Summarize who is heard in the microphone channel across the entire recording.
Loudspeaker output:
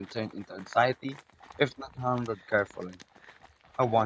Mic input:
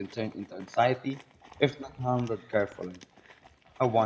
echo only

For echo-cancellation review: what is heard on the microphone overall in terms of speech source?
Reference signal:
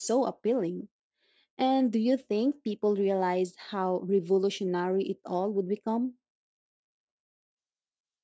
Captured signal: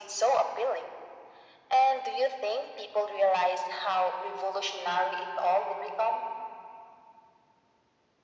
echo only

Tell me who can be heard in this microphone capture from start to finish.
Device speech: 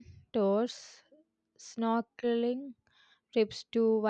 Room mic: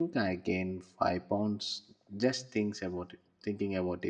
user only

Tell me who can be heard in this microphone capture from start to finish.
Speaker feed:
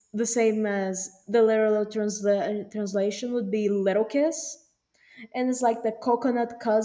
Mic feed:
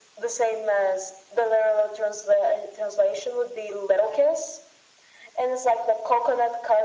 echo only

